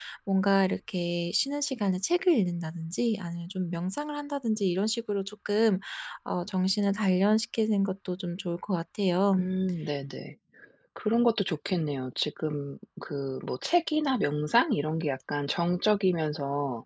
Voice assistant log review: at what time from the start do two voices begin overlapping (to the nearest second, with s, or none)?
none